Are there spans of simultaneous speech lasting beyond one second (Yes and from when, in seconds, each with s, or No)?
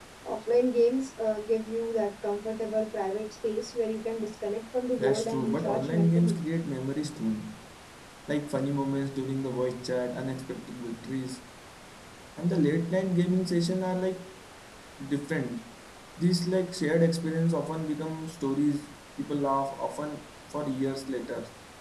Yes, from 4.9 s